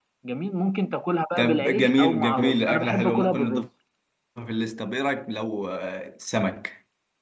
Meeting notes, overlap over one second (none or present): present